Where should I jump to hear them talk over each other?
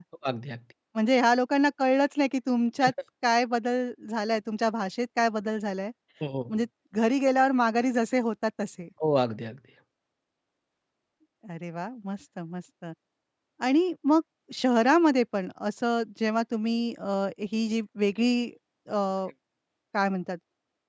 none

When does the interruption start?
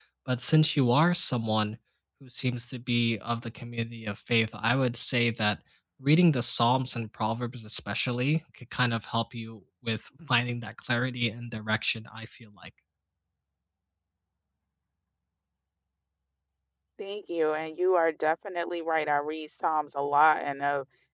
none

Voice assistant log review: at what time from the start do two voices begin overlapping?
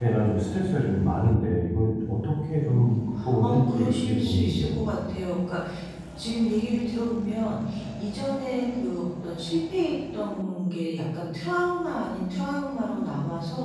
2.6 s

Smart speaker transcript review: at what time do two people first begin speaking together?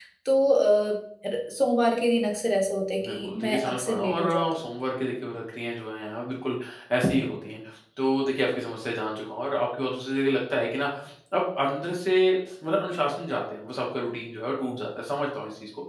3.0 s

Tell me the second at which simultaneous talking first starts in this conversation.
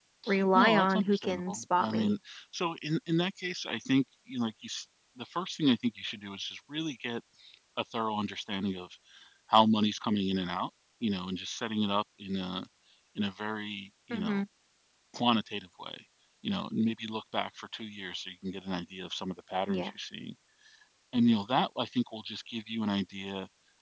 0.5 s

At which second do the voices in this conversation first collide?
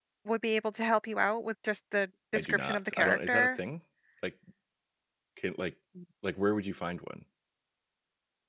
2.4 s

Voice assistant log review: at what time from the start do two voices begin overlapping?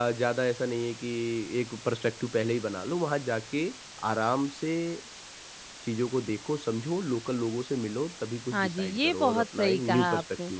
8.5 s

